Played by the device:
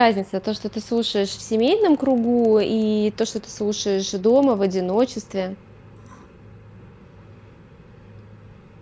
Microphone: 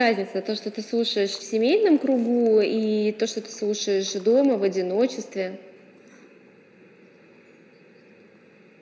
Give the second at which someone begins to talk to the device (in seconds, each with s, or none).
none